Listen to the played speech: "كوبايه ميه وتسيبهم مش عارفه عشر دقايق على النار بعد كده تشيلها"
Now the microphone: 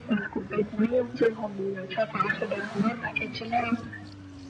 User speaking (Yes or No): No